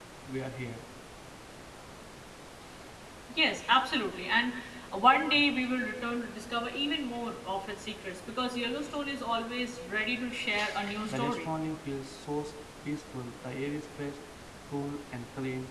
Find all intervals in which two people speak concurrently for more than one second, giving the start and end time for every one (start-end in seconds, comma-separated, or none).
none